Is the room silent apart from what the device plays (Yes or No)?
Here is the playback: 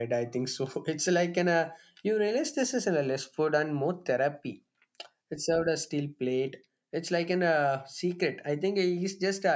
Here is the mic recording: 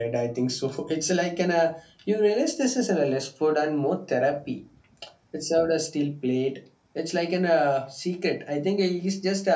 Yes